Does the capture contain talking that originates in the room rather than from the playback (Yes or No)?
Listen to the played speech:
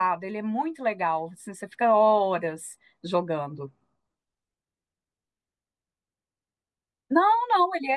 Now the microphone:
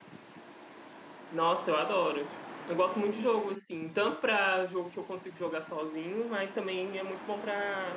Yes